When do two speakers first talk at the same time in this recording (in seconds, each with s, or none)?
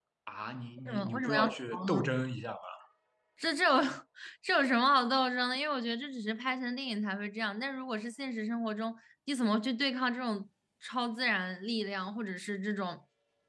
0.8 s